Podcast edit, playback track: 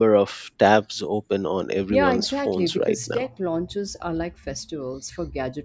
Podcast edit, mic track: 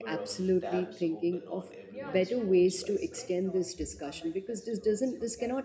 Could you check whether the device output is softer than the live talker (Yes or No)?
Yes